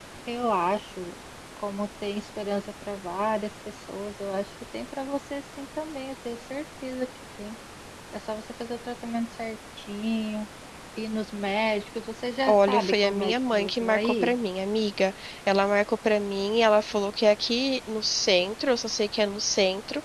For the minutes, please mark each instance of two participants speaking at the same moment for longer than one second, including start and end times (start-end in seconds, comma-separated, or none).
12.5-14.3